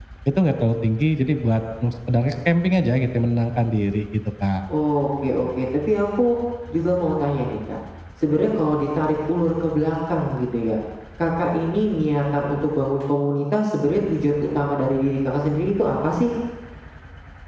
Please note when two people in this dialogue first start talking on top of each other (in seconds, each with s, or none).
none